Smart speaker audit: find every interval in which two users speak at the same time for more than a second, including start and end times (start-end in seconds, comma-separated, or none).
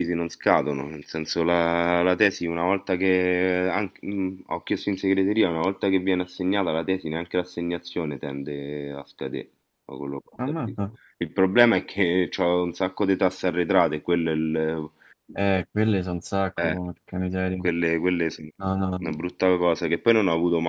none